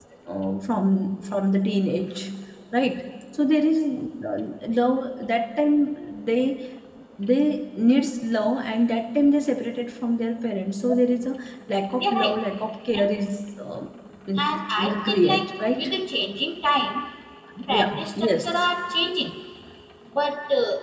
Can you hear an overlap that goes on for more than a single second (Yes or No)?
Yes